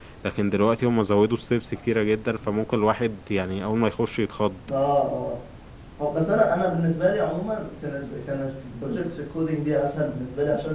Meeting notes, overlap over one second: none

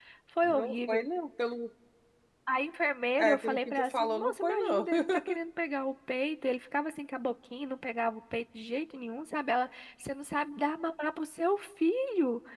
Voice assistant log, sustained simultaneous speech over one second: present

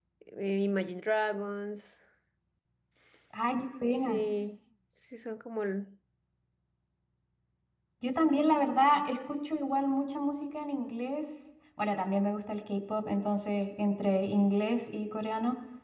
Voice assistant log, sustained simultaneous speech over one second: none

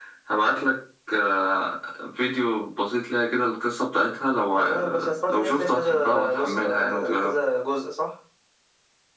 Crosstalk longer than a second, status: present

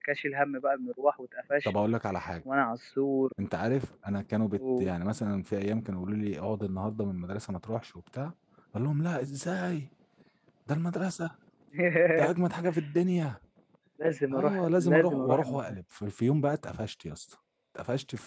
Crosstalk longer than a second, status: present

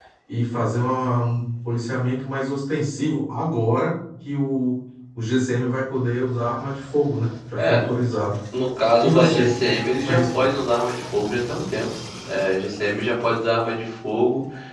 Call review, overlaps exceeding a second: present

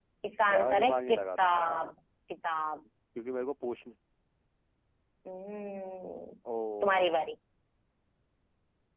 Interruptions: present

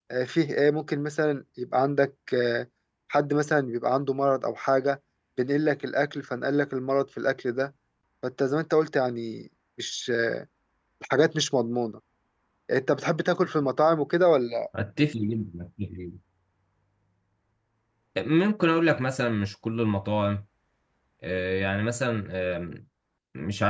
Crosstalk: none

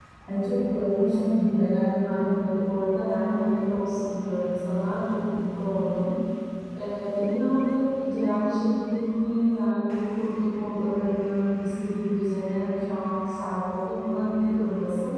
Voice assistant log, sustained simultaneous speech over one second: none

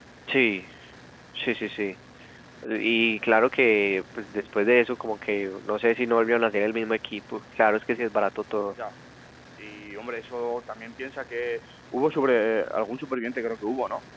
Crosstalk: none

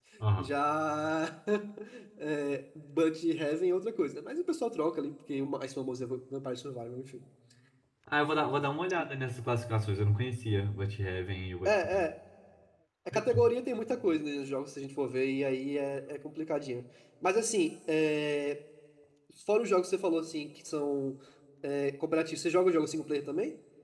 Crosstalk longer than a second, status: none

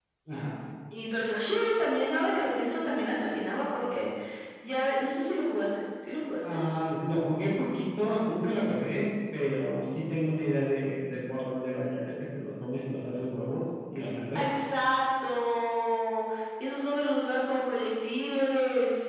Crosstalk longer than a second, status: none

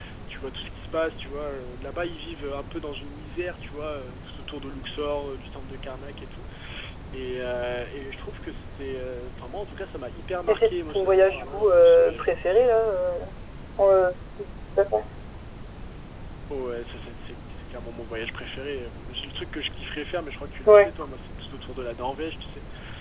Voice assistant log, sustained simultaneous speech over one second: present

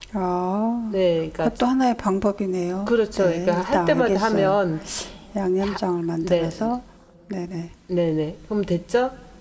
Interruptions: present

